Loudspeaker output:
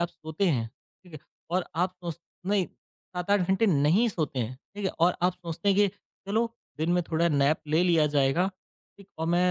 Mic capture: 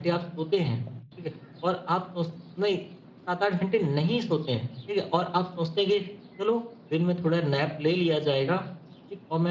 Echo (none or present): present